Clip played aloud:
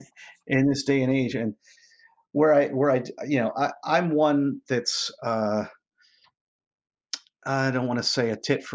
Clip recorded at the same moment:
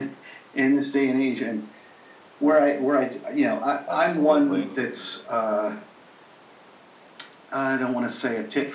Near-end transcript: absolutely

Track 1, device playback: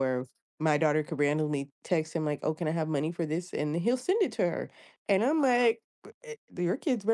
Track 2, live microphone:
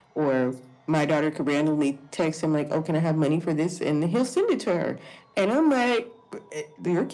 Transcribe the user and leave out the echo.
none

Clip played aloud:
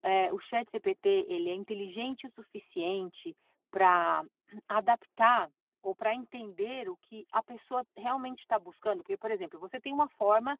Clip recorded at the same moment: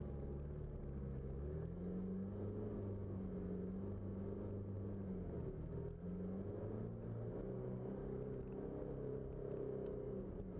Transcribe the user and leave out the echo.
none

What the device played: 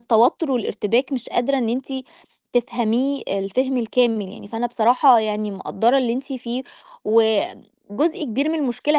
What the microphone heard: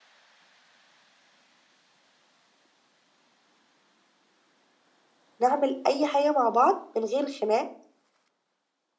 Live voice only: نعمل أي حاجة مع بعض من غير خناق

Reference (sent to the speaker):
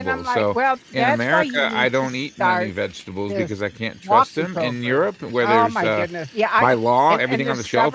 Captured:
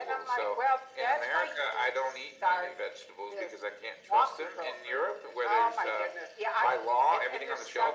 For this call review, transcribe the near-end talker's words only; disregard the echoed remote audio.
none

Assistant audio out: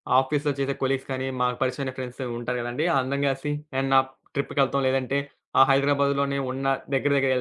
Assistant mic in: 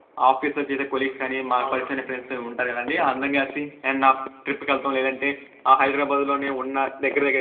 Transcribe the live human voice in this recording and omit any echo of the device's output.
అవునవును.

